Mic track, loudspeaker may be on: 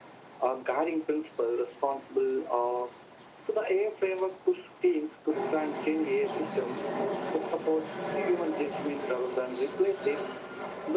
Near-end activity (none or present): none